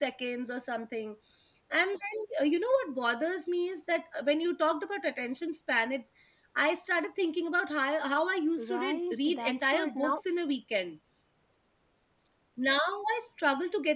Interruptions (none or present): present